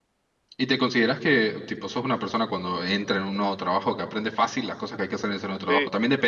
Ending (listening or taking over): taking over